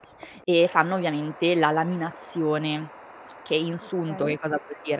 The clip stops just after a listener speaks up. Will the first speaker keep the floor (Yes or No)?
Yes